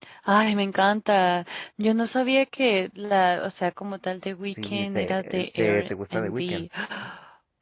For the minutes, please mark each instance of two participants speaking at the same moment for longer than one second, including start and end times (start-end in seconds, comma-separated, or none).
4.4-6.7